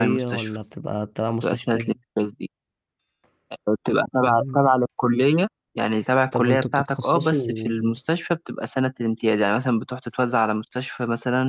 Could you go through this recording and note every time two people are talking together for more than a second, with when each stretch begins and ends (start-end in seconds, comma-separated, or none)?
6.3-7.9